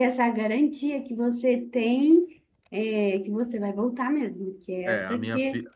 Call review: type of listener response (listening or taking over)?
taking over